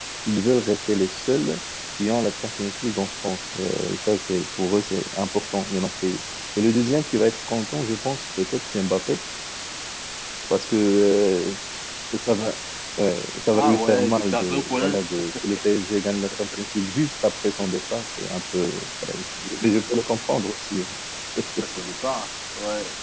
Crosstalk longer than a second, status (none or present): present